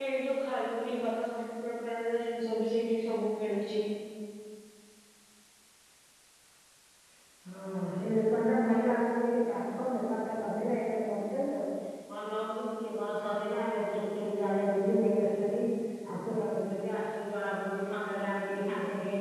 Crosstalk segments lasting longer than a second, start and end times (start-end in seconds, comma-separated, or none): none